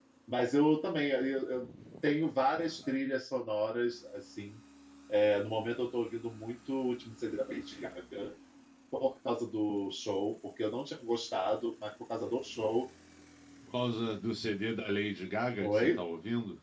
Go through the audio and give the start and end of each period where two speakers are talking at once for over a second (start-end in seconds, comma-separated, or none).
none